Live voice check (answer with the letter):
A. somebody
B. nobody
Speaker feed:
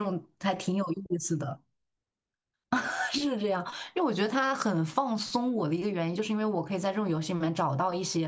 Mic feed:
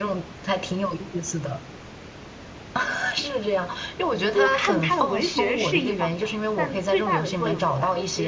A